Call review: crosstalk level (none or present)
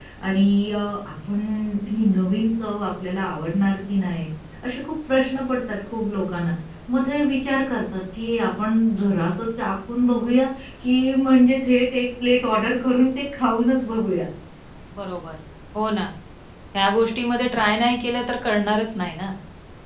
none